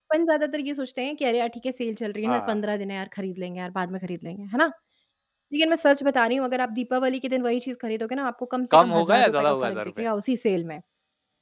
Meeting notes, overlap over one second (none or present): present